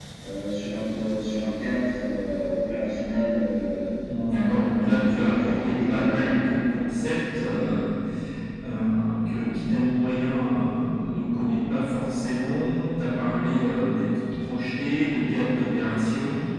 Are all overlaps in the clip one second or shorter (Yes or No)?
No